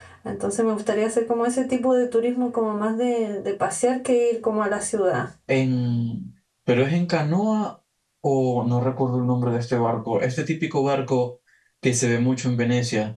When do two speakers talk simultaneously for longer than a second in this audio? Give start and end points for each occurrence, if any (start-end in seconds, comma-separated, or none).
none